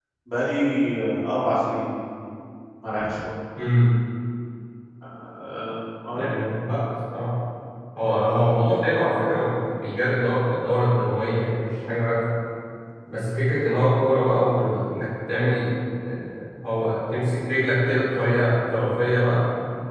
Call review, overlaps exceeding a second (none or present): none